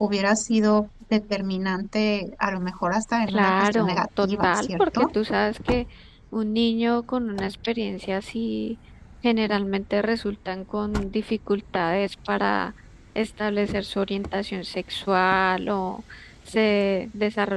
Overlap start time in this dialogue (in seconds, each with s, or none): 3.3 s